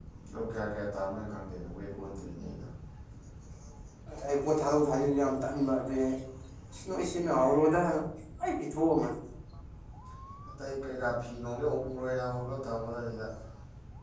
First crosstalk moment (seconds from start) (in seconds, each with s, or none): none